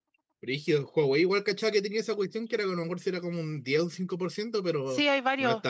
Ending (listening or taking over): taking over